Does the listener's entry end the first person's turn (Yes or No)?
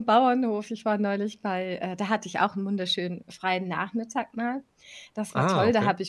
No